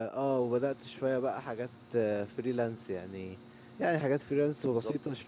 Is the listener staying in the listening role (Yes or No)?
Yes